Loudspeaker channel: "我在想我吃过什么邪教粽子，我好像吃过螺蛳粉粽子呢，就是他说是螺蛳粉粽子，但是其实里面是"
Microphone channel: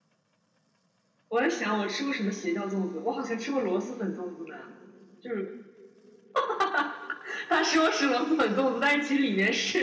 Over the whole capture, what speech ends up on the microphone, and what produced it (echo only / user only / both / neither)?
echo only